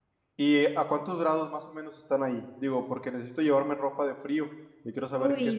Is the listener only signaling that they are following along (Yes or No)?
No